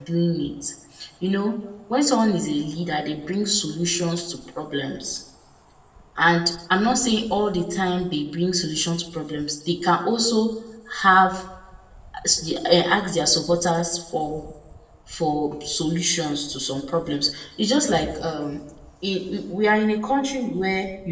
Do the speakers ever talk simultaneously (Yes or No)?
No